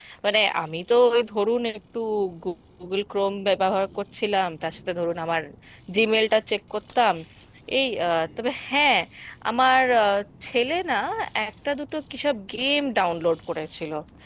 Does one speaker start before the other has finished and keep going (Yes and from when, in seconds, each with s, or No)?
No